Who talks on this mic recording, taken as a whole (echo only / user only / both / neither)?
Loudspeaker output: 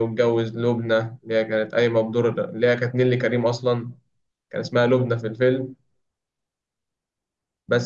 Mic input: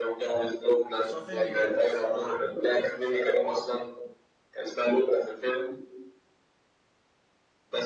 both